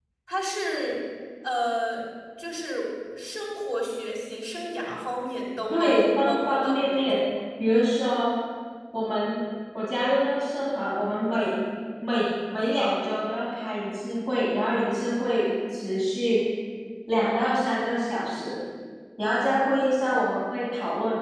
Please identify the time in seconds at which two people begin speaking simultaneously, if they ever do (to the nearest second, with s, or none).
6 s